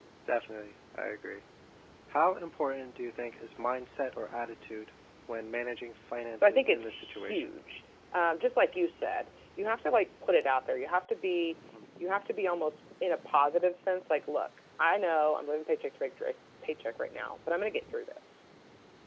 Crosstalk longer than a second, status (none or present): present